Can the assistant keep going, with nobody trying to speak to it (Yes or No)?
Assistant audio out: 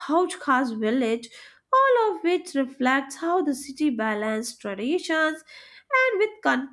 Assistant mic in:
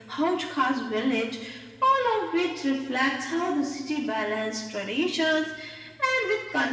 Yes